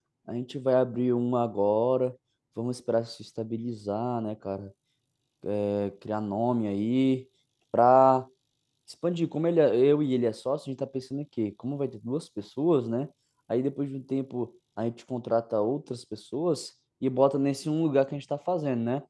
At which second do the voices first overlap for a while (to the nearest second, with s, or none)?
none